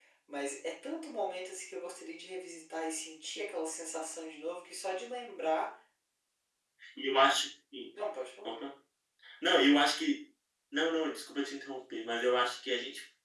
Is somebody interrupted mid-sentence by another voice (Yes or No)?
No